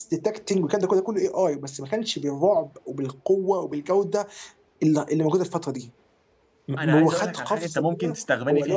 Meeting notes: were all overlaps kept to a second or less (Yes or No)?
No